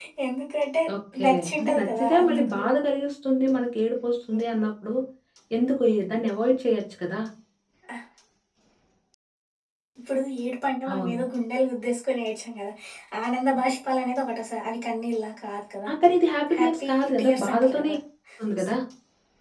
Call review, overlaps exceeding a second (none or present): present